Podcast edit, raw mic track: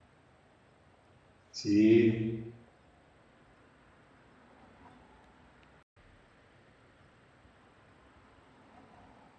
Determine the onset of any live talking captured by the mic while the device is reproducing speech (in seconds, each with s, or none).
1.5 s